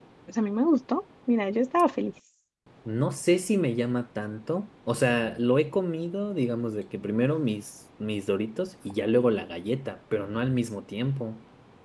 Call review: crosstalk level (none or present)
none